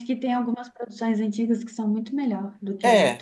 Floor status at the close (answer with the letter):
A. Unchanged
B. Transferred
B